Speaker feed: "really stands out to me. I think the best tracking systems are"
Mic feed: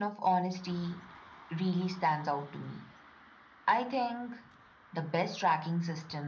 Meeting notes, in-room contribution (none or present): none